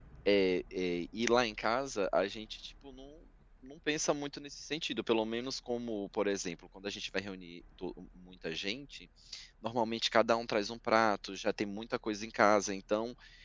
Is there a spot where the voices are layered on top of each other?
No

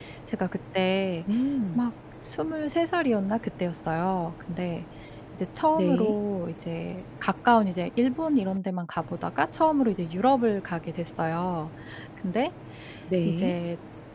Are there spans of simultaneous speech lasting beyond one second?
No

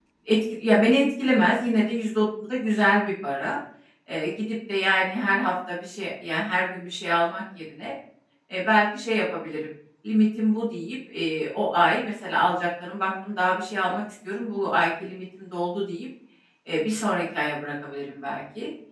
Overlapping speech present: No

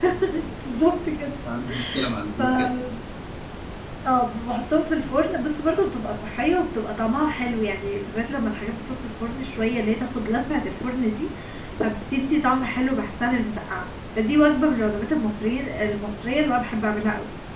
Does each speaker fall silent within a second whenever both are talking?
Yes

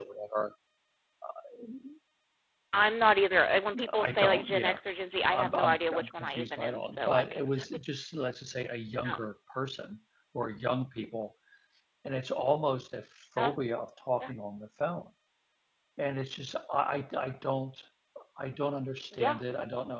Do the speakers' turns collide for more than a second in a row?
Yes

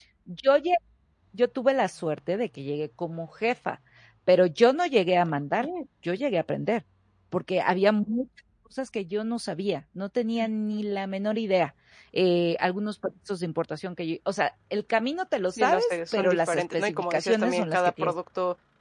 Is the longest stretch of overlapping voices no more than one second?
No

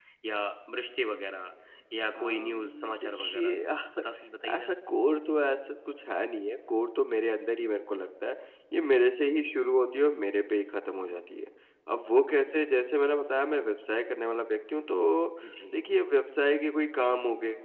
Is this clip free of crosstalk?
No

